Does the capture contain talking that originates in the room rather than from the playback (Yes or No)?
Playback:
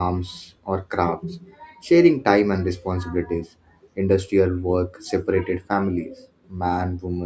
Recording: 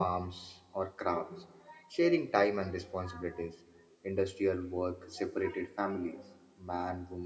No